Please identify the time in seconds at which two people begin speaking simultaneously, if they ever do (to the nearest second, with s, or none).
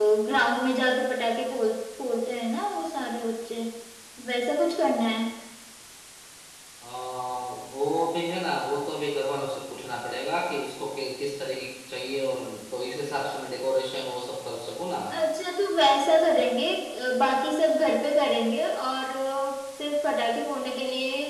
none